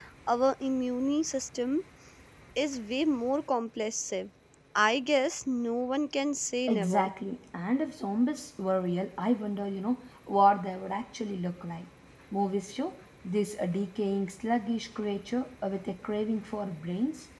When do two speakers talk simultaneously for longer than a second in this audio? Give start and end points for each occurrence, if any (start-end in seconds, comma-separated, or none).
none